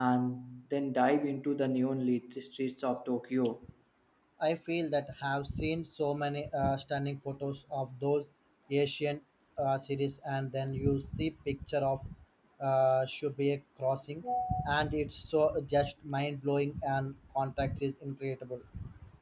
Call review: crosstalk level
none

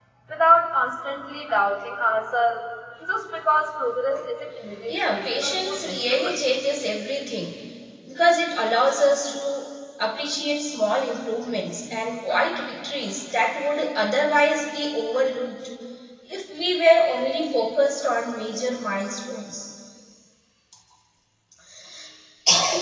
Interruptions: present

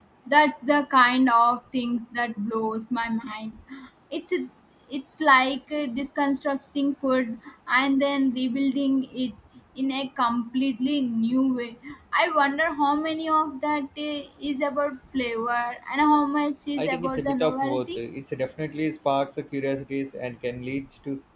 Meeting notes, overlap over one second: present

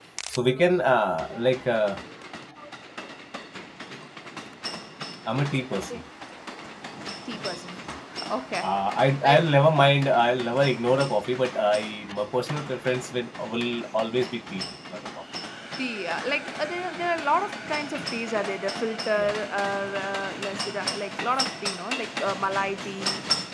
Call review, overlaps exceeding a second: none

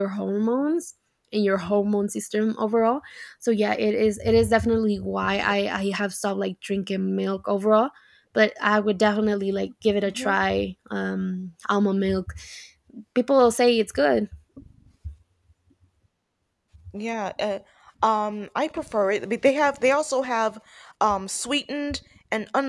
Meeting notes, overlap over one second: none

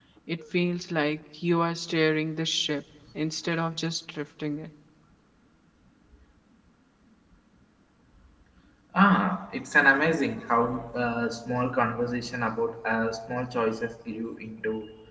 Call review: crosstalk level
none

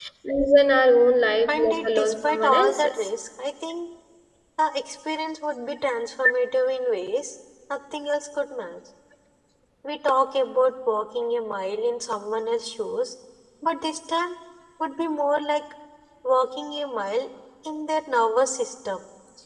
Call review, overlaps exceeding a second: present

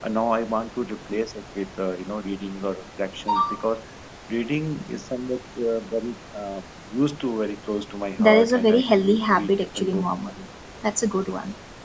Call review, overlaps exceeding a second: present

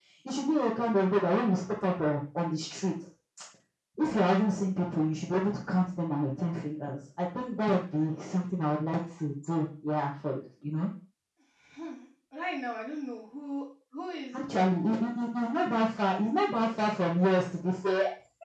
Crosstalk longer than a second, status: none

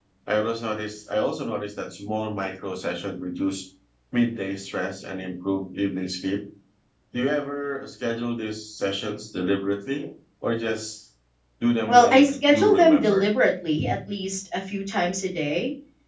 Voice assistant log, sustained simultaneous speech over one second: present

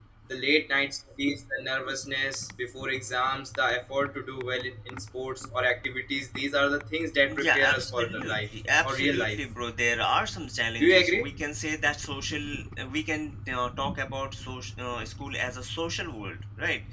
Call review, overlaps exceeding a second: present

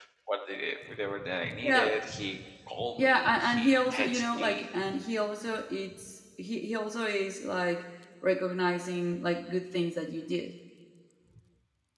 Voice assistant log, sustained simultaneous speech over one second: present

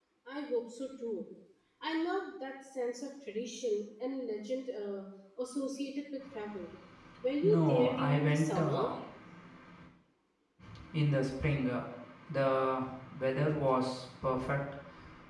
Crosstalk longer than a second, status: present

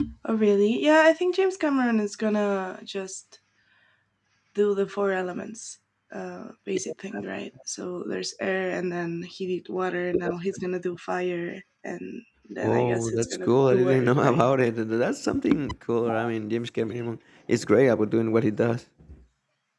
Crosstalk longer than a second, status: present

